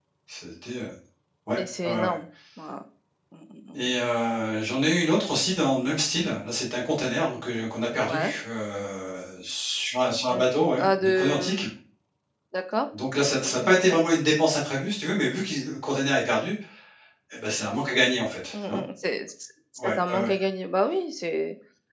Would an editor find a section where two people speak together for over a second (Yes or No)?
Yes